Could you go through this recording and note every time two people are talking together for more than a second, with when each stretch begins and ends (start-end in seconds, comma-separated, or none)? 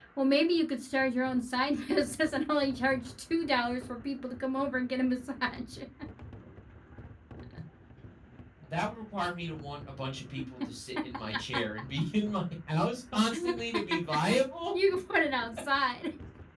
none